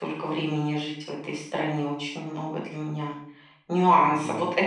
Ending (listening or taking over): listening